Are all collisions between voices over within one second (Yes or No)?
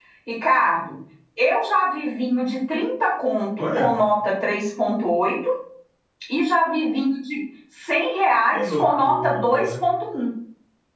No